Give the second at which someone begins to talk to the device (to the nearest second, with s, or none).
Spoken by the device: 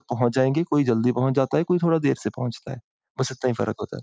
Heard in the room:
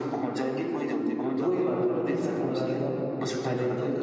1 s